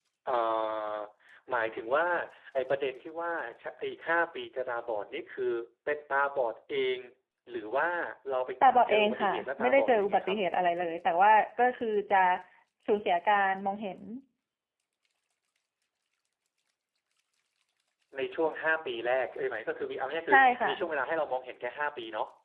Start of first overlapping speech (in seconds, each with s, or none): 8.9 s